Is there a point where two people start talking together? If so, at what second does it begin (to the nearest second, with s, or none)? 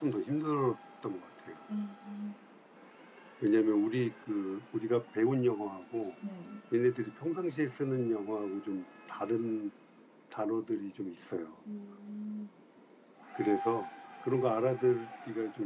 none